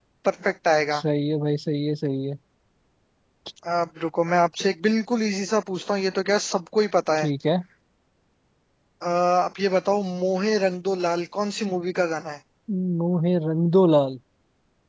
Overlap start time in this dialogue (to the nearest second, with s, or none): none